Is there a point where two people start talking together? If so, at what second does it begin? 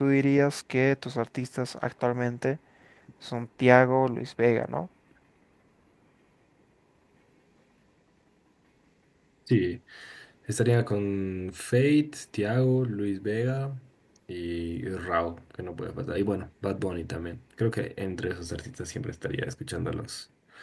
none

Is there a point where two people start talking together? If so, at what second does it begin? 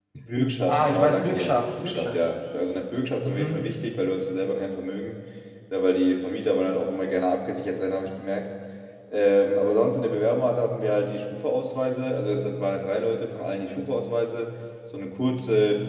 0.7 s

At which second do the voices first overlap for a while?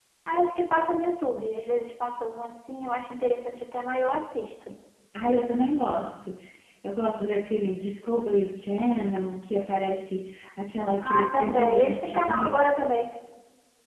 11.0 s

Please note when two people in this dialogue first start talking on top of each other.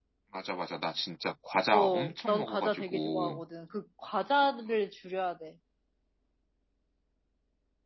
1.7 s

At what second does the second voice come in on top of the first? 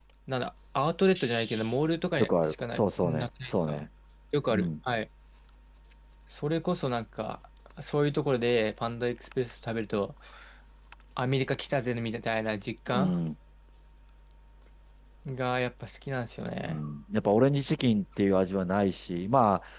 2.2 s

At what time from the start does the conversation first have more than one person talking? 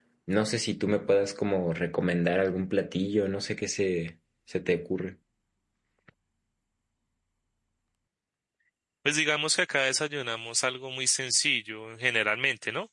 none

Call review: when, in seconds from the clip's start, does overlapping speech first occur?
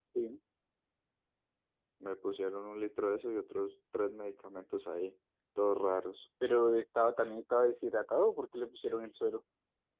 none

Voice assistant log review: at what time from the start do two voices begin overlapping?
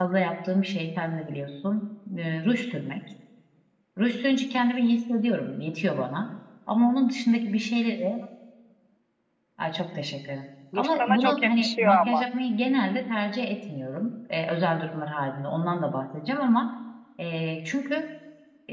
10.7 s

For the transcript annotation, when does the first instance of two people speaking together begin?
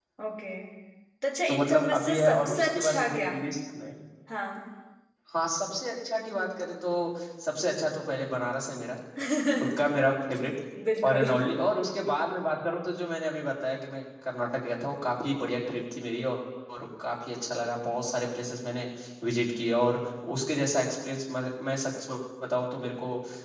1.5 s

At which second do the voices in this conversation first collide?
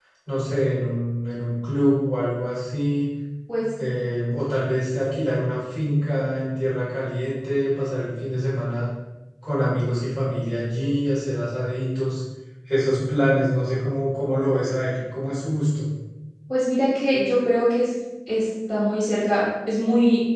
none

